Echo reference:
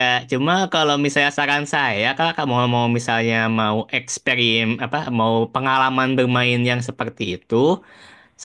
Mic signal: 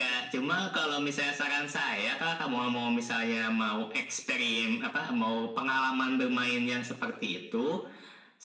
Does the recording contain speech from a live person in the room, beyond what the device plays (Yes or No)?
No